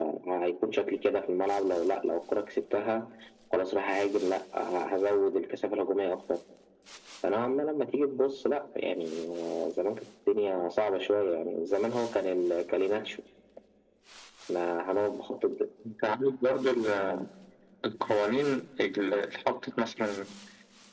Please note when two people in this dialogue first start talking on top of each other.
none

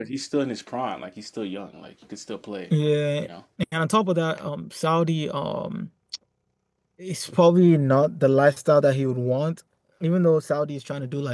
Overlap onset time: none

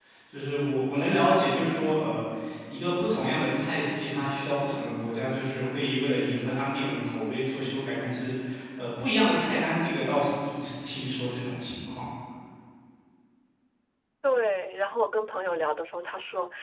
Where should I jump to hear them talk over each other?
none

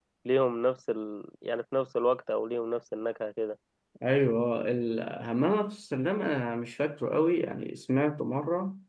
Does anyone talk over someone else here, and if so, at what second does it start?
none

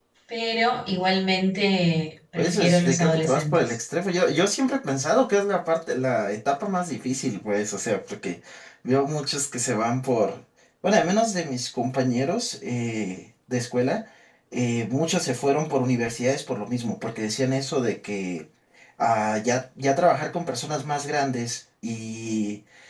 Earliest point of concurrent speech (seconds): 2.4 s

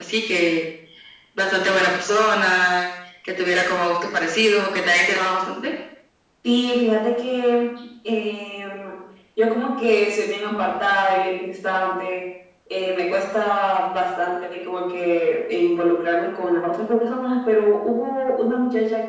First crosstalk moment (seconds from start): none

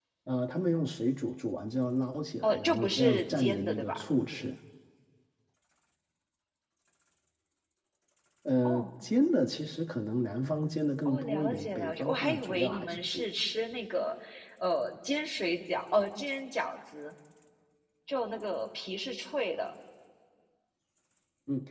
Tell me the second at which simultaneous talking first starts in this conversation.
2.4 s

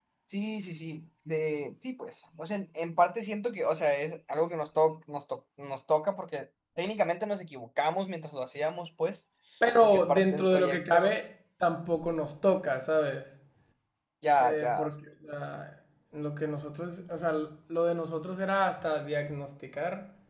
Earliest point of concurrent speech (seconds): 9.8 s

